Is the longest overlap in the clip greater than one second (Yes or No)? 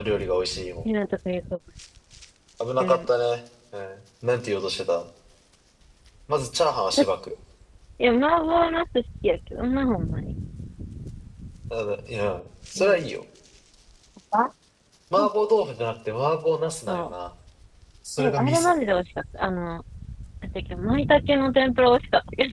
No